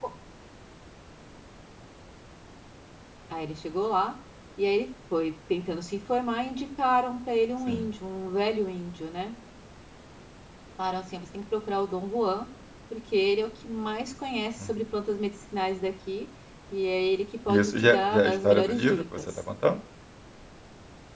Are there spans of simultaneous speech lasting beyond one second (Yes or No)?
Yes